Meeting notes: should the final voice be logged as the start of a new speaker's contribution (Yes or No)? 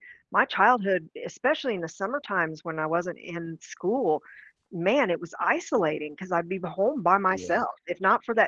No